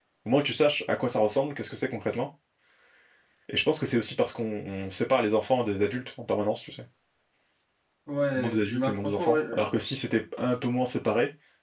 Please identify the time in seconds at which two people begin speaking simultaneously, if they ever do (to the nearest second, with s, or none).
8 s